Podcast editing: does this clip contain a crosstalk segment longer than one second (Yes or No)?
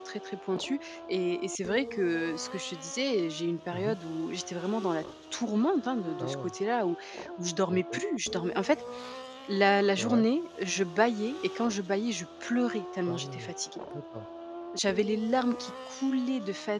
No